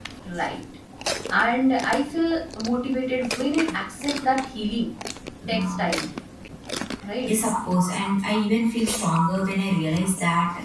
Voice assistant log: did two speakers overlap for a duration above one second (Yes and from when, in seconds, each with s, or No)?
No